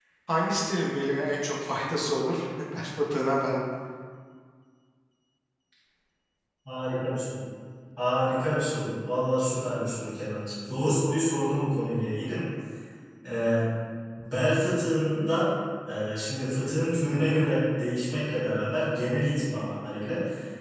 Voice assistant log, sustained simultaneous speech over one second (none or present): none